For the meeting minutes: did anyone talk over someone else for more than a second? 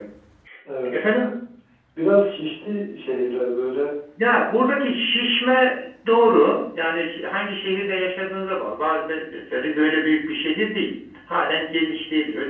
No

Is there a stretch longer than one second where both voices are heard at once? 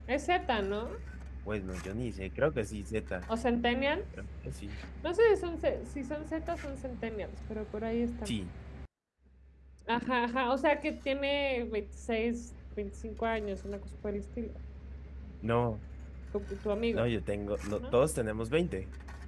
No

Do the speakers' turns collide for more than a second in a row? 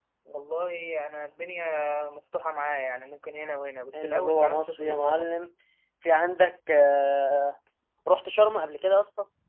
Yes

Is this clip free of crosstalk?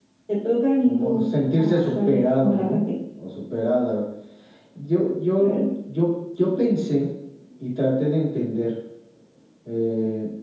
No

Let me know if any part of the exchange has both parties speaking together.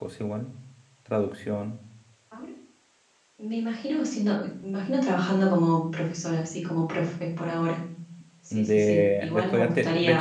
Yes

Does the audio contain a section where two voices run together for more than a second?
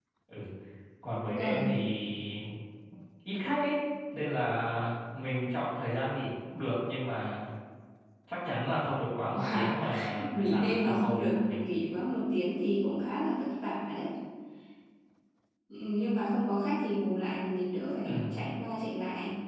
Yes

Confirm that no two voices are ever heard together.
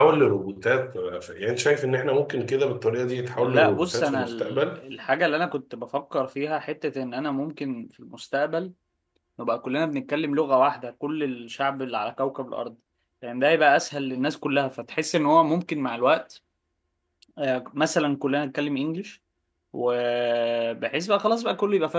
No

